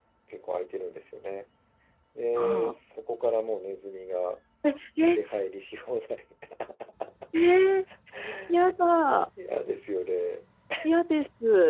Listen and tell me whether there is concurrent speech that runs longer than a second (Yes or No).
No